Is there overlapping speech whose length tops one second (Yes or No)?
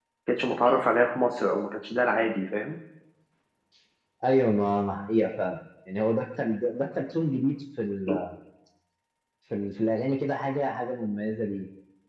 No